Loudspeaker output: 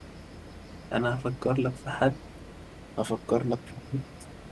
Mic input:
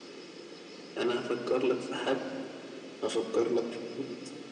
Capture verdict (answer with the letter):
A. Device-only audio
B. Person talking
A